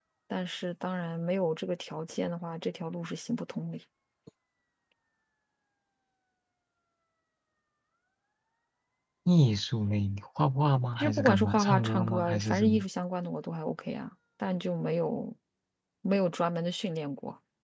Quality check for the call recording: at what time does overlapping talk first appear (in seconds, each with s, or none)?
11.0 s